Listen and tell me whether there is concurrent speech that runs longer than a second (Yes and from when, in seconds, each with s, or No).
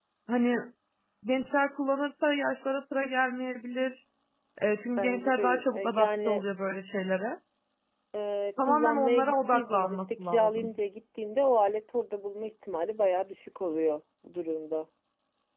Yes, from 5.0 s